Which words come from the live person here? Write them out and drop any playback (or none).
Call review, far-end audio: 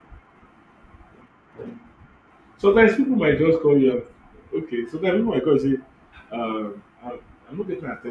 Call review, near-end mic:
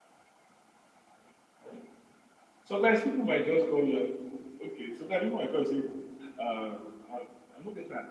none